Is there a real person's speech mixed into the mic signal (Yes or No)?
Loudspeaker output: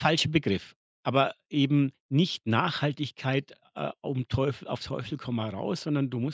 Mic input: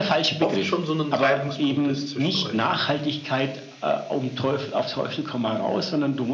Yes